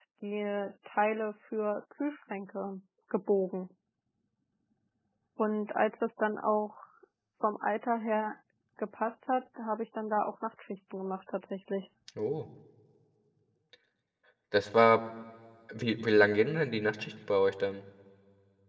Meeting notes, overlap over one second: none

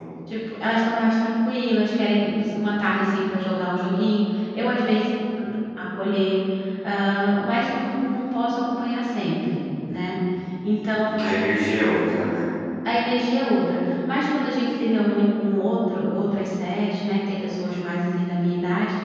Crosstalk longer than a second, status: none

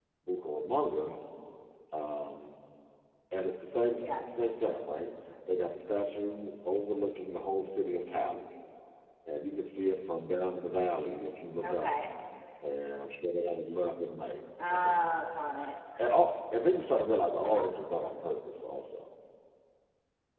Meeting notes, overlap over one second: none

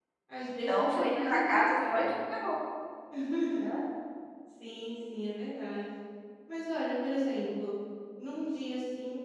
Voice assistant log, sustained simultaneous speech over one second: present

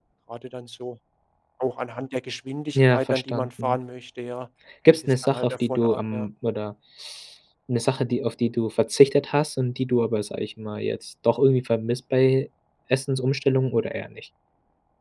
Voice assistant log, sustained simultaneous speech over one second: present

